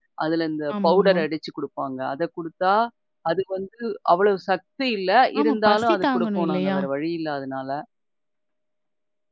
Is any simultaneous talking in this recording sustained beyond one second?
Yes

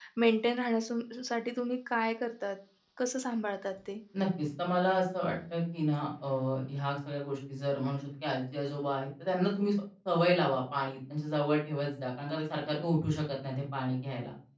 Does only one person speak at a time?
Yes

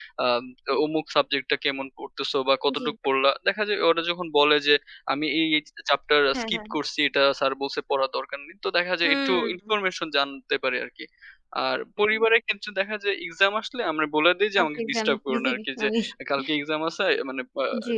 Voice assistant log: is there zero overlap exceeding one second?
No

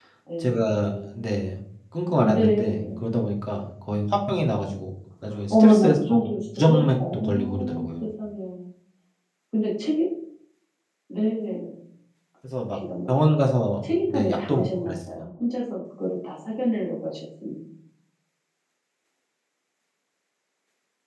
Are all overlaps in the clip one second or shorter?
No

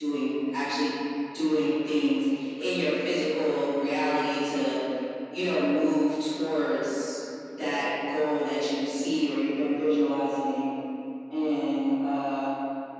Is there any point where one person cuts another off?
No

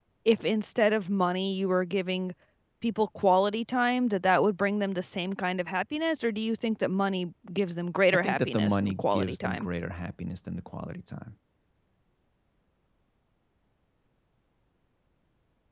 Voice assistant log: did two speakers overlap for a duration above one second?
Yes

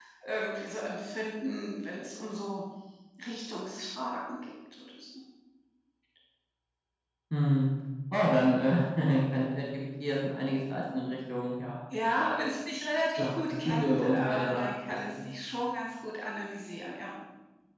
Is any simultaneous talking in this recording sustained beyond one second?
Yes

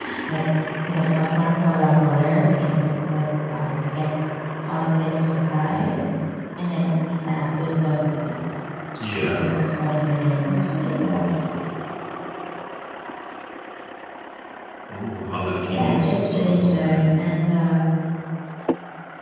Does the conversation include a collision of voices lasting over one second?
Yes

